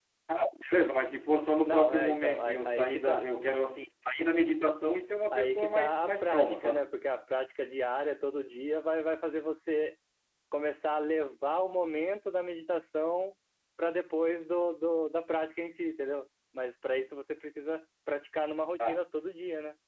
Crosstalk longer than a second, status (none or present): present